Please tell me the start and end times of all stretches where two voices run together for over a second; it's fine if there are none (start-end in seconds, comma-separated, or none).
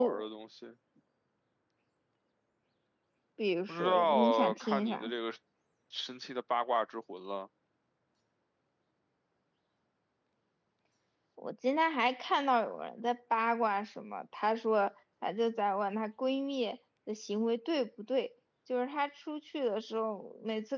3.7-5.1